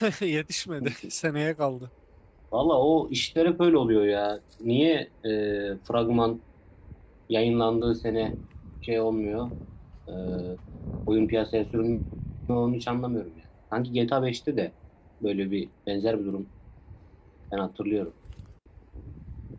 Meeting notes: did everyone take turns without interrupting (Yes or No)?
Yes